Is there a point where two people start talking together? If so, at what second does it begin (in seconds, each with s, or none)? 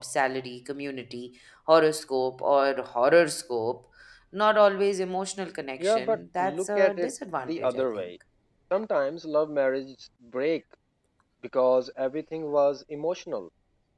5.8 s